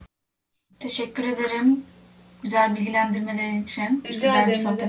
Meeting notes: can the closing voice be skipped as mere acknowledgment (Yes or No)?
No